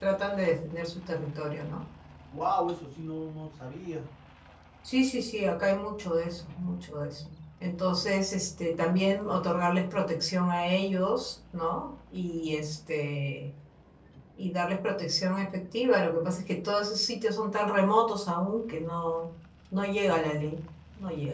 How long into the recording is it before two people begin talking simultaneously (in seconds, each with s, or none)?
none